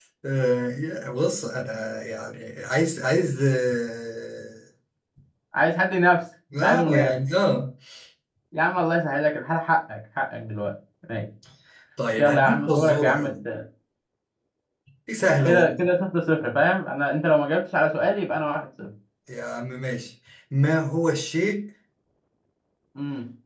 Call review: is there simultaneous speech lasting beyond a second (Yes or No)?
Yes